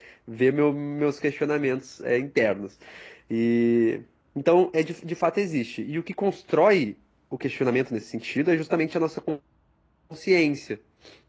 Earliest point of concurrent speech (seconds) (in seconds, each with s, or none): none